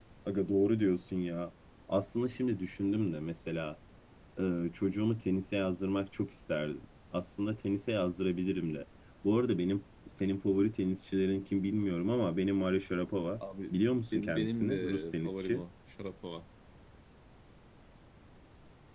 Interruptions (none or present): present